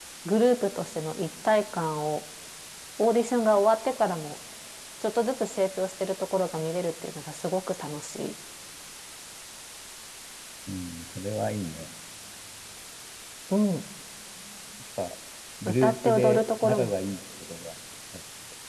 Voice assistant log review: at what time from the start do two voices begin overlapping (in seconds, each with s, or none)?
15.7 s